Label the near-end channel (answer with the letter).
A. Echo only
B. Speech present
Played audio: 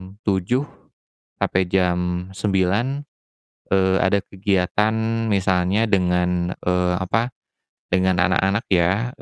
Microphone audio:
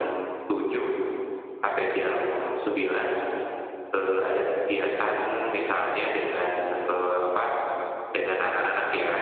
A